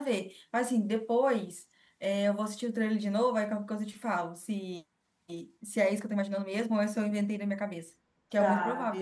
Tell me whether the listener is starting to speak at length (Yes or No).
Yes